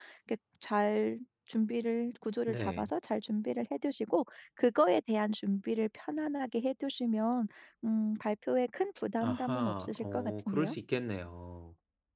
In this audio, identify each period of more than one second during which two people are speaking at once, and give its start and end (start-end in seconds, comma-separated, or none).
9.2-10.8